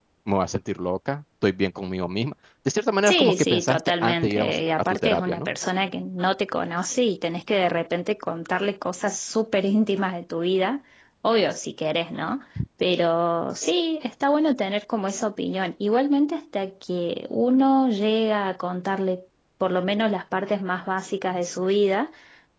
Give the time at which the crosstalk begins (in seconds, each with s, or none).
3.0 s